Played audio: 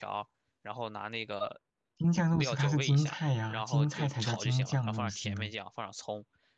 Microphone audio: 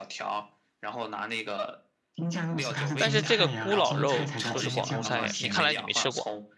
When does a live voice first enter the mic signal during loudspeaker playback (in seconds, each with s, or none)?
3.0 s